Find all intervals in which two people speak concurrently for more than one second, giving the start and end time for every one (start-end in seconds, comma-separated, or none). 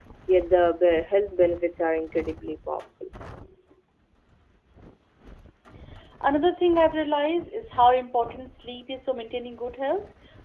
none